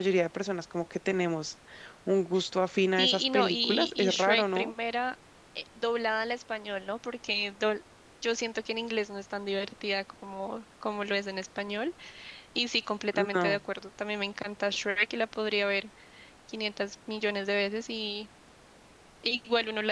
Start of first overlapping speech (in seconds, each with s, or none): 3.0 s